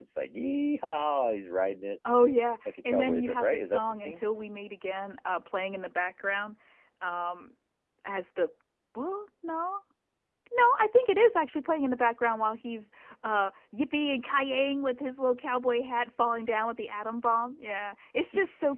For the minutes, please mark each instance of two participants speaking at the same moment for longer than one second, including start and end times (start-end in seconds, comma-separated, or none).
2.9-4.2